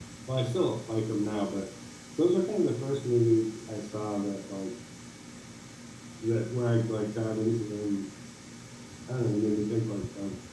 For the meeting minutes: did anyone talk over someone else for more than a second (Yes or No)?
No